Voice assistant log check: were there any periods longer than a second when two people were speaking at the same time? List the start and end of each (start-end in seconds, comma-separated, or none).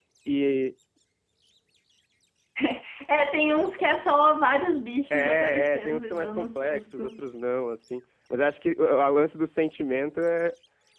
5.1-7.2